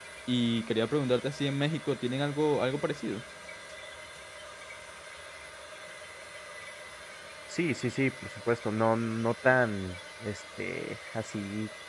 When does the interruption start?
none

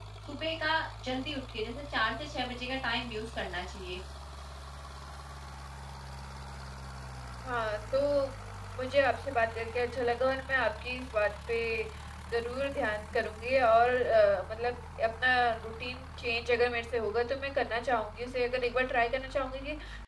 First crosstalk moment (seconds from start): none

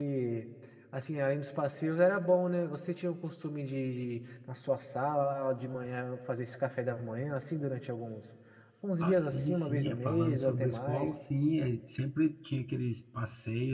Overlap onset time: 9.0 s

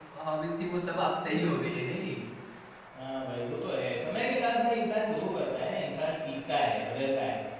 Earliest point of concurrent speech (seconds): none

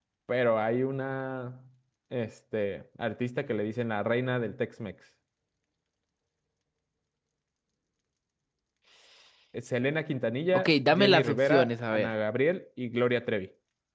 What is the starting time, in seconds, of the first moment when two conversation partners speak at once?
10.5 s

